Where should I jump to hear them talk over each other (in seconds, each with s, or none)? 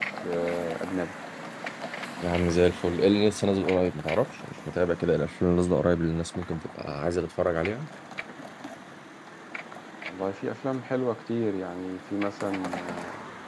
none